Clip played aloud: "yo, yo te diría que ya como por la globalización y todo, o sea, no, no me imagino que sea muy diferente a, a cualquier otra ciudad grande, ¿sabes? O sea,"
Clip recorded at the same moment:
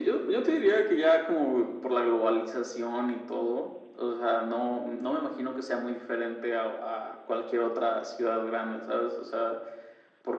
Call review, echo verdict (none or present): present